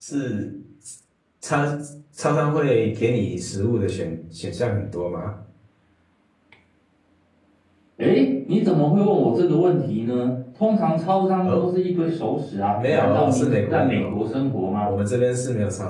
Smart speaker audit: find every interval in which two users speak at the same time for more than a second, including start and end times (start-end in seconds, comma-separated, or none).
12.8-14.2